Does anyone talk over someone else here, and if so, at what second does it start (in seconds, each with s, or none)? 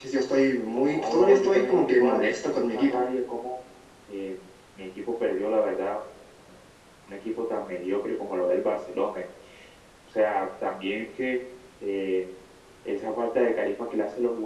0.9 s